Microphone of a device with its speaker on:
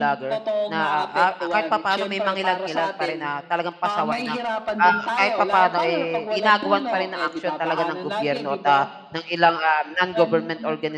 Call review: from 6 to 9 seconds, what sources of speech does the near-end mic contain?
both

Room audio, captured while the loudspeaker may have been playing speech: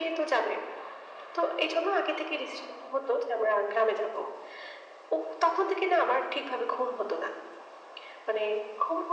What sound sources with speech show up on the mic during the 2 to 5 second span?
echo only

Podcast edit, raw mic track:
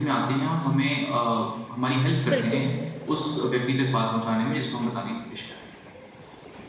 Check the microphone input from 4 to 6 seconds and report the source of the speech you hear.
echo only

